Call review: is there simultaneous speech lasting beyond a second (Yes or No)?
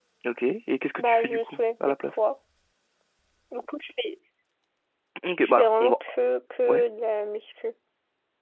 Yes